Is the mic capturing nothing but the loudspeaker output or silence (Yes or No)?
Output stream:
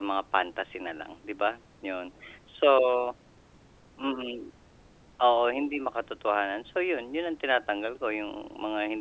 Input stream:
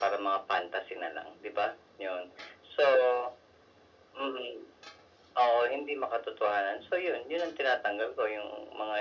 Yes